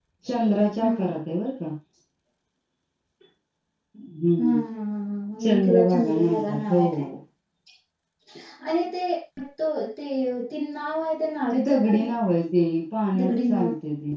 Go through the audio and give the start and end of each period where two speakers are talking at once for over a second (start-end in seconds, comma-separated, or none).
5.4-6.8